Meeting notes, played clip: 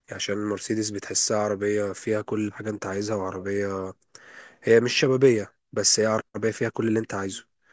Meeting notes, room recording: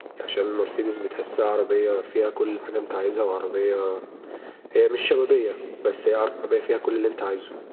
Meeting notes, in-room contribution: none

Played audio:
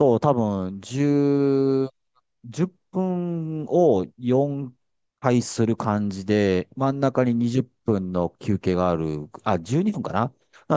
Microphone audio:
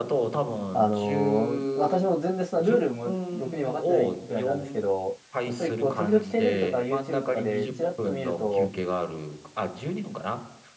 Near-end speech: present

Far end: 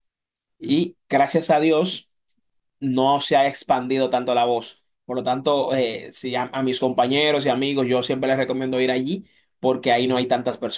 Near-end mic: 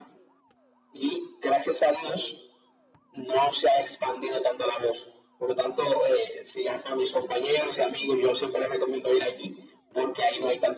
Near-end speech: none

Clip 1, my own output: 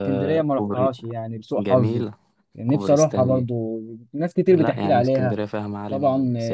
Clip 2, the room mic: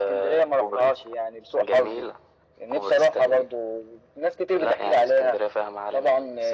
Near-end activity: none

